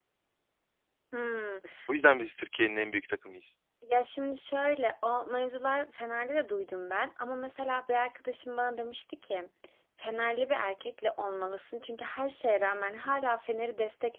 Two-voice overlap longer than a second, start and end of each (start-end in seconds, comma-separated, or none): none